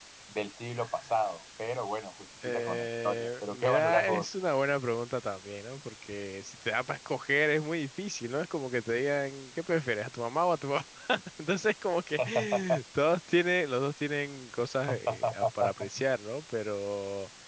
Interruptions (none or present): present